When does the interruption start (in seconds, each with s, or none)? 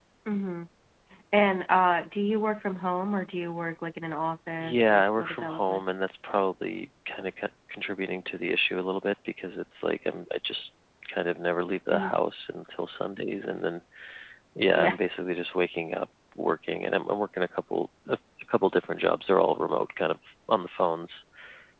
4.6 s